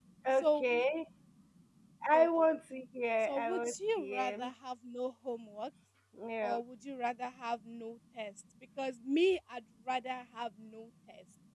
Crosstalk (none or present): present